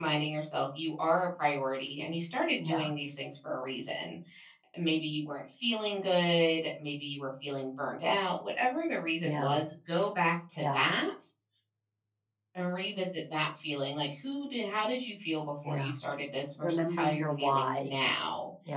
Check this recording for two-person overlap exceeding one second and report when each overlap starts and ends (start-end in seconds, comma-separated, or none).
16.6-17.9